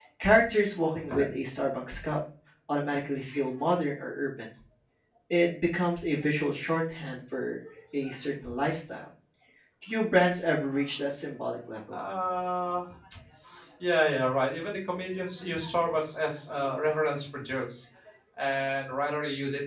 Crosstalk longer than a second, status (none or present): none